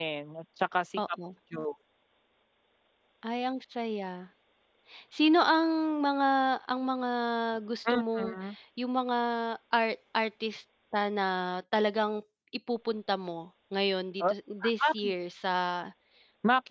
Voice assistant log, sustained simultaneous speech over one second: none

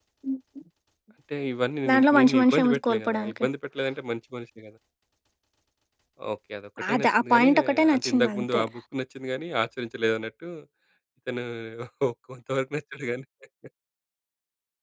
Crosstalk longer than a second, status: present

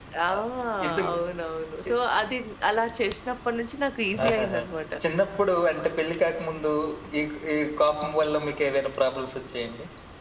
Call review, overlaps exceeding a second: none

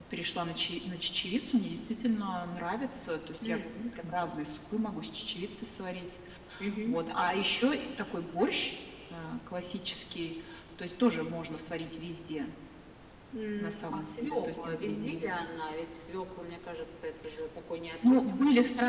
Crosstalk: present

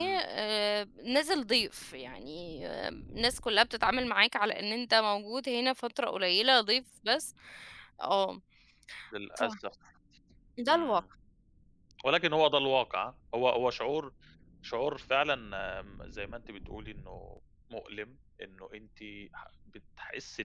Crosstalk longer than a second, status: none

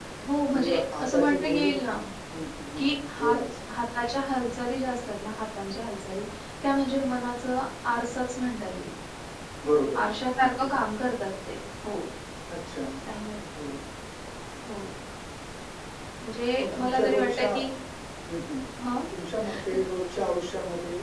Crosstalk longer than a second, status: present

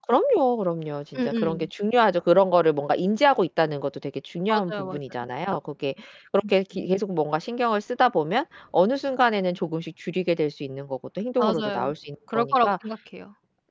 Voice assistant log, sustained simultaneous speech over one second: none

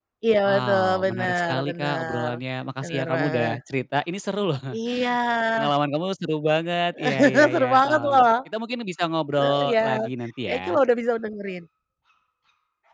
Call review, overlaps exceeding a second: present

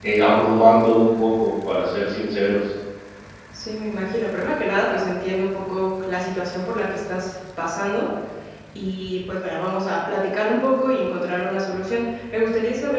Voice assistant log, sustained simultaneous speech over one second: none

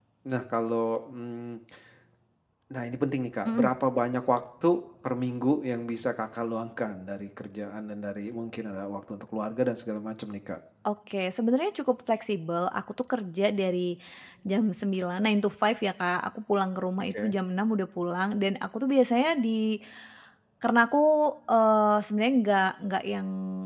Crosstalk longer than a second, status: none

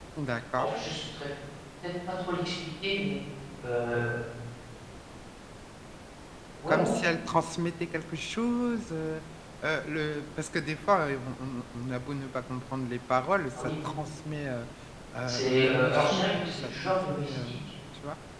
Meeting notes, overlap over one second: present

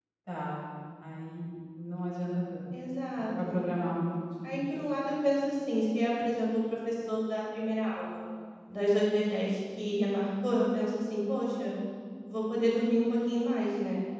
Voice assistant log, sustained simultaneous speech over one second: none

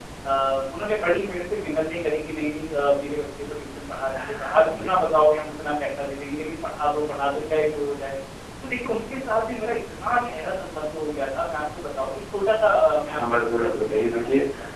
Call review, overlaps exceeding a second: present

